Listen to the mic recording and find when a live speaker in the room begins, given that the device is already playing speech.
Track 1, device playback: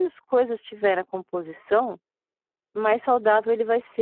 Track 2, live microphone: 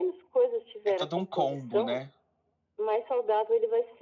0.9 s

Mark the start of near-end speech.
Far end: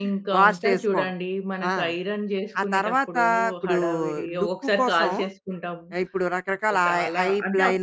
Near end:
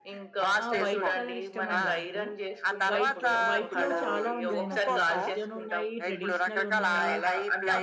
0.6 s

